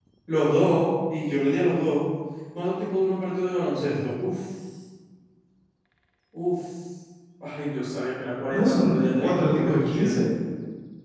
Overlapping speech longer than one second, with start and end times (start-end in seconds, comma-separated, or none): 8.5-10.1